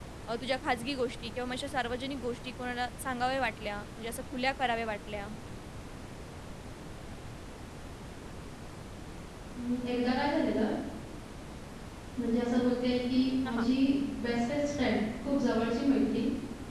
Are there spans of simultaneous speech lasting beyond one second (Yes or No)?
No